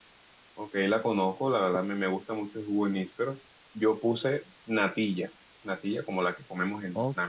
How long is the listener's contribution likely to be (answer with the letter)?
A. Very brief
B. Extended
B